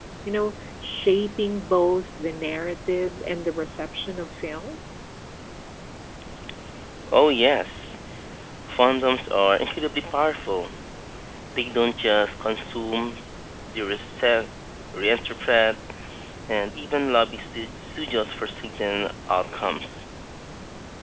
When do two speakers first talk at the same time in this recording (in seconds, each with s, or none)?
none